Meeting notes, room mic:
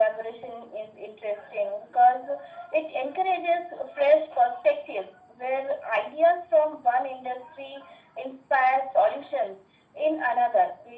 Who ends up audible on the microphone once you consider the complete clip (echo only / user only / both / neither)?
echo only